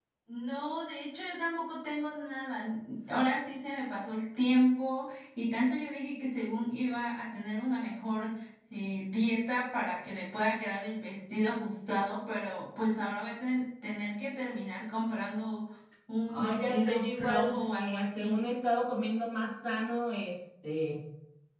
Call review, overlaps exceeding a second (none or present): present